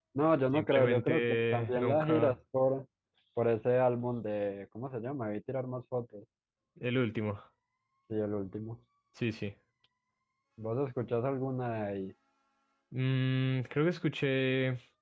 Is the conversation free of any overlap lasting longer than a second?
No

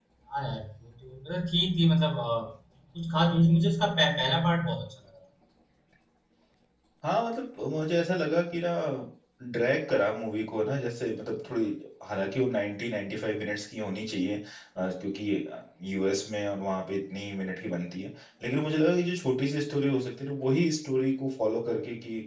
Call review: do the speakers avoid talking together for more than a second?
Yes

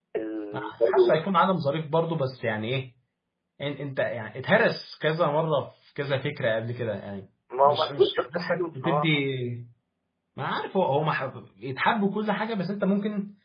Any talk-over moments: Yes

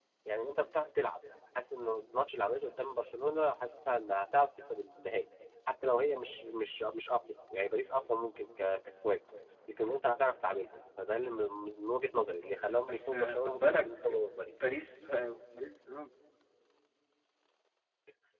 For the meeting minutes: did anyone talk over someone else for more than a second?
Yes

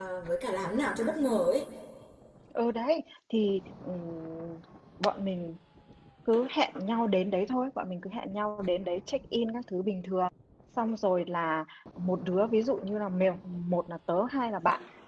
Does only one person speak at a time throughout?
Yes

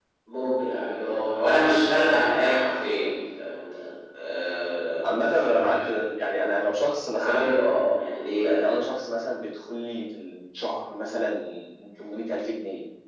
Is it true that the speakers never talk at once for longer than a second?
No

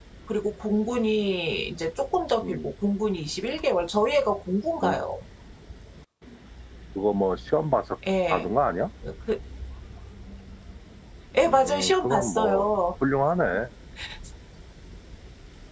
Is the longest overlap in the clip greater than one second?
Yes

